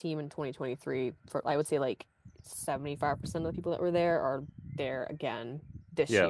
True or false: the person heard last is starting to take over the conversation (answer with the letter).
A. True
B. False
B